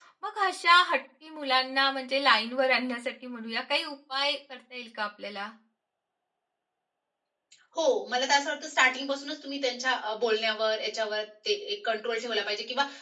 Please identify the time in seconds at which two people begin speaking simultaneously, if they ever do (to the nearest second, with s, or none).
none